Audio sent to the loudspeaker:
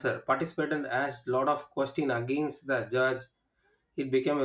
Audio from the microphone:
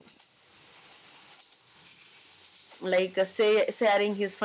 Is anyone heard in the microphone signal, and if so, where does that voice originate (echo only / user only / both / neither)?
user only